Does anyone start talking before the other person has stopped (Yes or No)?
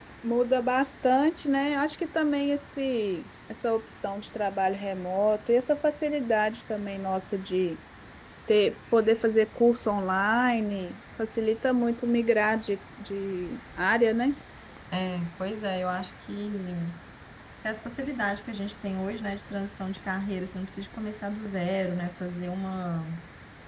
No